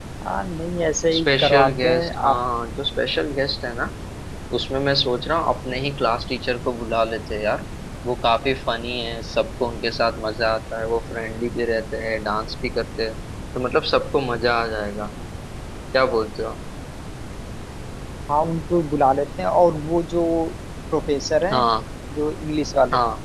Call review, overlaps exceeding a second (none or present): present